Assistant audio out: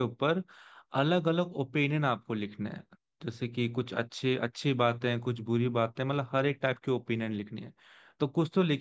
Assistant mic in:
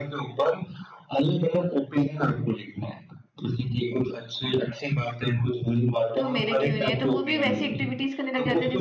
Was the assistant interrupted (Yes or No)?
Yes